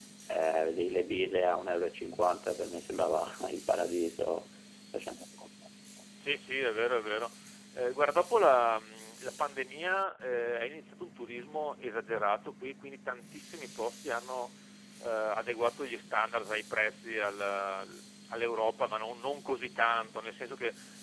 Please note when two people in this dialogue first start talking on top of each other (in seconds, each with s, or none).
none